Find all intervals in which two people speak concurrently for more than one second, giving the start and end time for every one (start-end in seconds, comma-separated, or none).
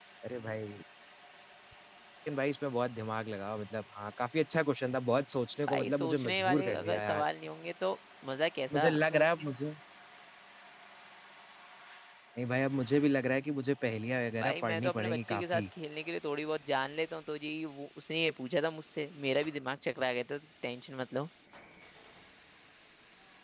5.7-7.2, 14.4-15.6